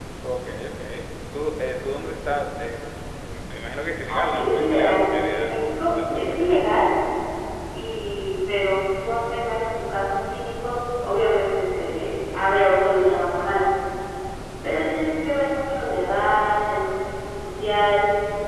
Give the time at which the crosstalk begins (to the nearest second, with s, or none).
4 s